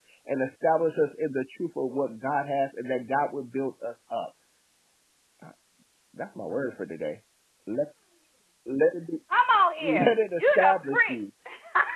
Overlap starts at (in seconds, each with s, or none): 9.8 s